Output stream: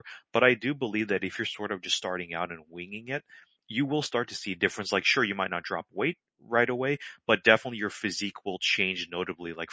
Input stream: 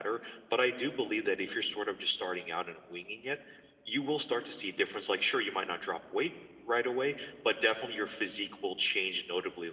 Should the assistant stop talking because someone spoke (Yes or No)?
No